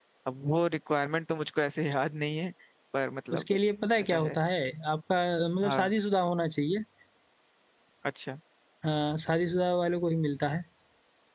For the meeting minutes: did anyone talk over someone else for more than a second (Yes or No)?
No